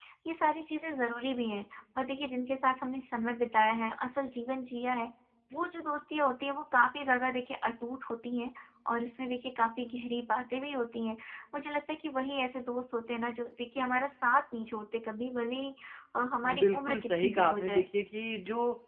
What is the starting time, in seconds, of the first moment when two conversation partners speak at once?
16.6 s

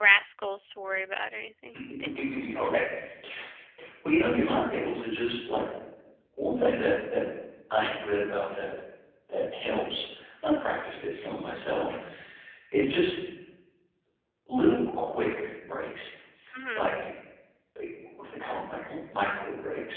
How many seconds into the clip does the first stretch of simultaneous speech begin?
none

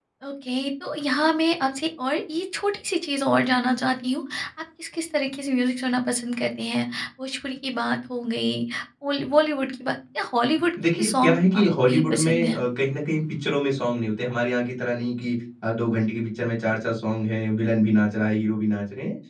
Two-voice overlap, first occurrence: 10.8 s

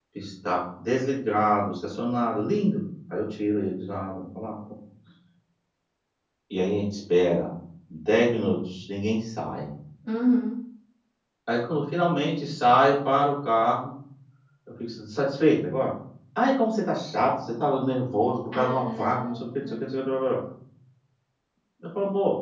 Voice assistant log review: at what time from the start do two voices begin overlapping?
18.5 s

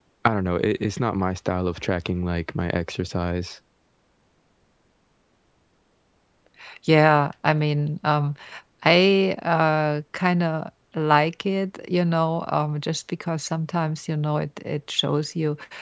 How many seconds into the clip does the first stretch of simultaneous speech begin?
none

